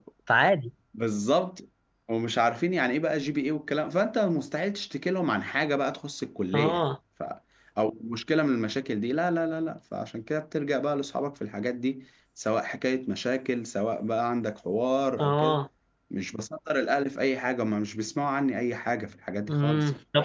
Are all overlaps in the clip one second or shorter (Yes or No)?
Yes